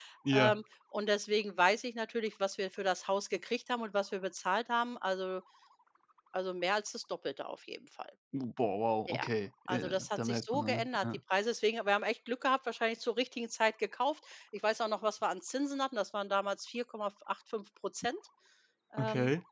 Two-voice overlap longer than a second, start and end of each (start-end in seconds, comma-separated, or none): 9.7-11.0